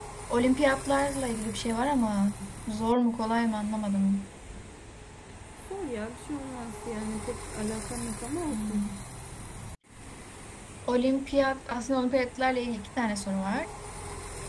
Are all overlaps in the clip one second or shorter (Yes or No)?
Yes